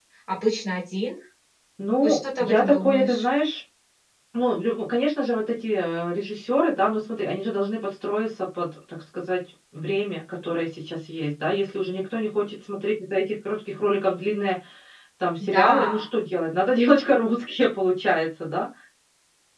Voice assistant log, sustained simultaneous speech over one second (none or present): present